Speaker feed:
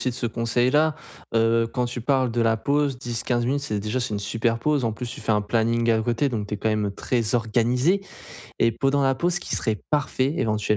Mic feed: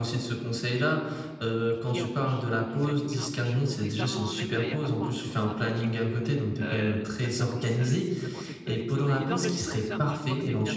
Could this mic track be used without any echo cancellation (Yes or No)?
No